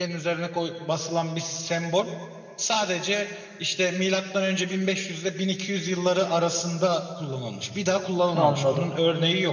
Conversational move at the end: listening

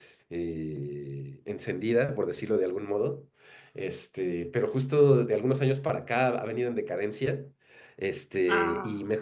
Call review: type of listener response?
listening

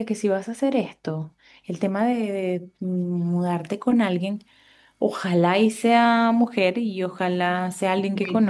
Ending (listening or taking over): listening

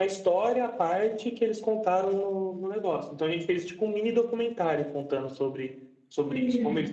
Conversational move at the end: listening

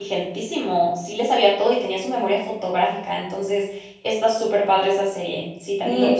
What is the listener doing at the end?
taking over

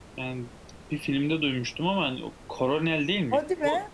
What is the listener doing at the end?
listening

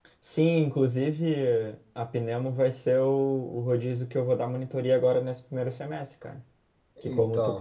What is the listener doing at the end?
listening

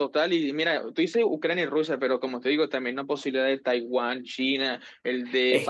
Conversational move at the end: taking over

